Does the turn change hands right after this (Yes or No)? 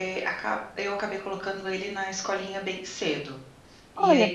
Yes